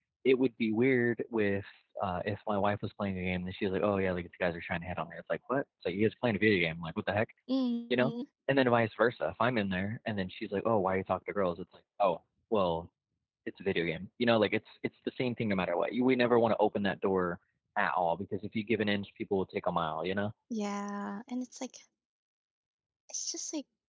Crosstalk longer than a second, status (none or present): none